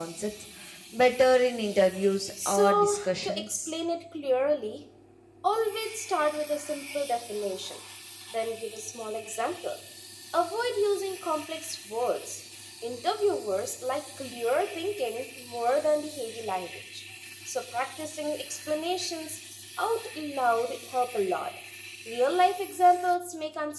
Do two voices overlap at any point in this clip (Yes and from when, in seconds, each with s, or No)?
Yes, from 2.4 s